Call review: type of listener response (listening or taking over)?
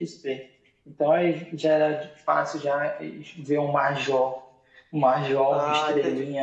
taking over